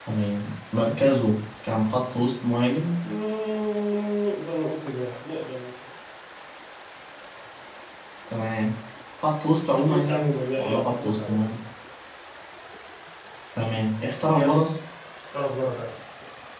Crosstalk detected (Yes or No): Yes